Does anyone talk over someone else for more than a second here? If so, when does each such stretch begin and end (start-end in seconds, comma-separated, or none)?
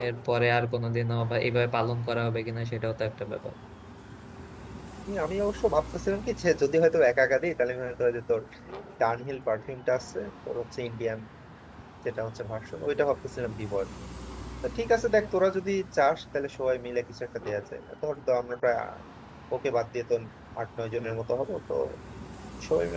none